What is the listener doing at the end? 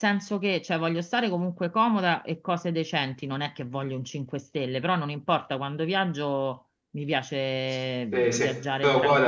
taking over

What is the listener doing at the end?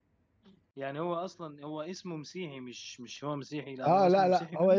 taking over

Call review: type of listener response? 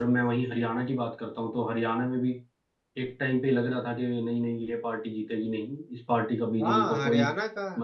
taking over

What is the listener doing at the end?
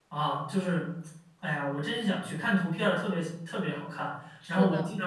listening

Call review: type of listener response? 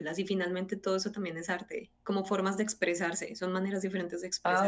taking over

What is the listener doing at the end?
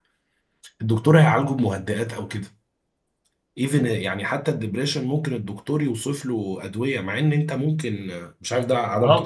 taking over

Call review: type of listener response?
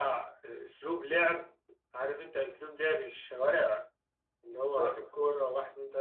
listening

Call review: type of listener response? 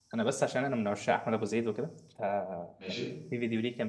listening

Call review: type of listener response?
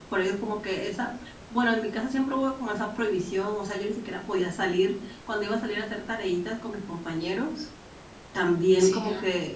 listening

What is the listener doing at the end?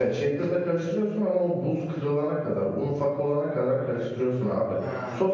listening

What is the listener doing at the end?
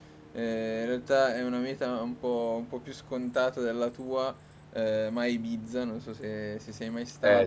listening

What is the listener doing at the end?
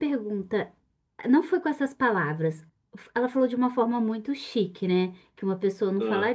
listening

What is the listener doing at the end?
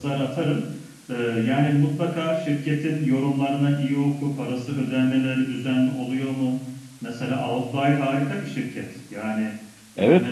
taking over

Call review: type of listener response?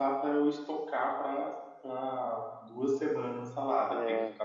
listening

